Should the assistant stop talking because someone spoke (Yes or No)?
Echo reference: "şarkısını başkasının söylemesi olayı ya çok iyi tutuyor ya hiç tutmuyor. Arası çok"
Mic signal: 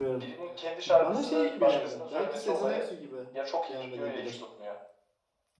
Yes